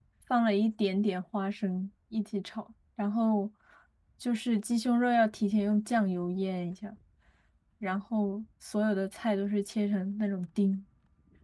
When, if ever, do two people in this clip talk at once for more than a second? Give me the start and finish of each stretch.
none

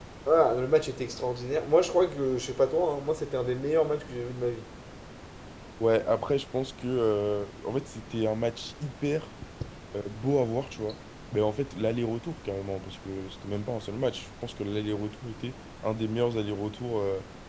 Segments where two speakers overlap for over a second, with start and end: none

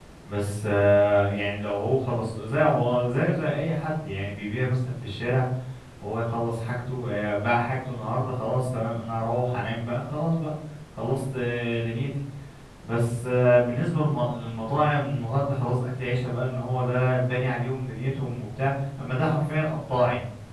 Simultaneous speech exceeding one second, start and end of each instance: none

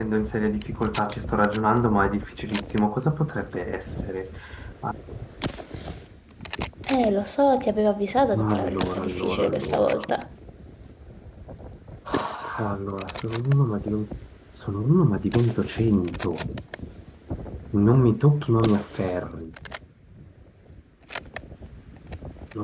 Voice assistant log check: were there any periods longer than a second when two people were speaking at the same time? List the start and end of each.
8.3-10.0

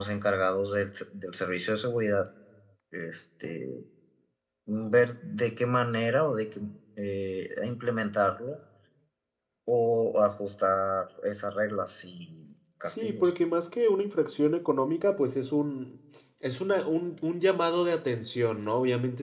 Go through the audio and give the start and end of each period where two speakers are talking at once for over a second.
none

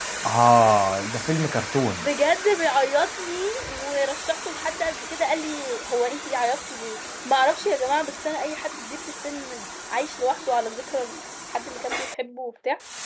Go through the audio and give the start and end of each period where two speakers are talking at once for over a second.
none

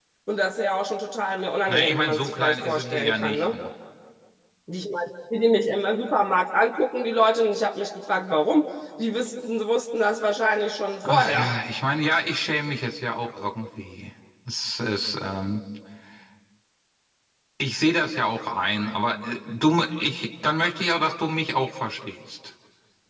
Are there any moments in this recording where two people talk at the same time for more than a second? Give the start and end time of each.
1.7-3.6

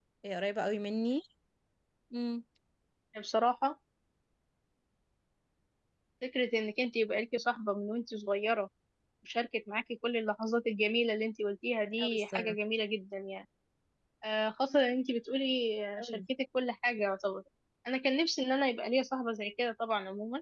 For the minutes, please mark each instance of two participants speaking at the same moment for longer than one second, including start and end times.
none

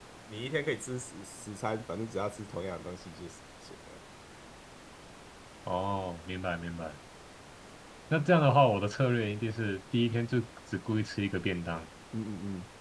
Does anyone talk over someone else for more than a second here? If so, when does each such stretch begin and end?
none

